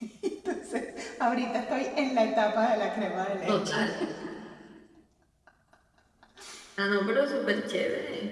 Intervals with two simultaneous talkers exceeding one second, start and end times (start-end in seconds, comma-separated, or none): none